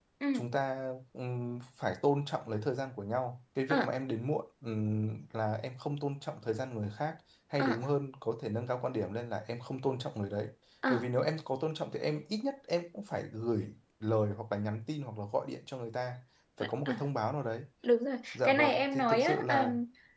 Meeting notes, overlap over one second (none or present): present